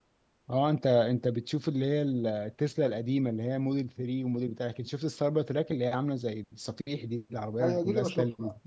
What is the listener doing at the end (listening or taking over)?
taking over